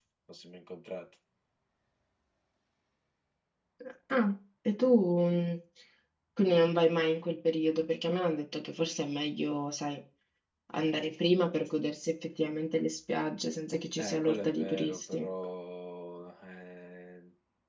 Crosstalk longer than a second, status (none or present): present